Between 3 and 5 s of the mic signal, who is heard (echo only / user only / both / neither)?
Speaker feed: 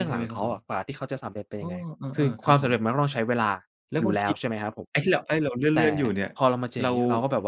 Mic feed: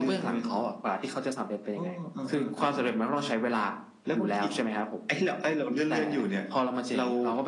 echo only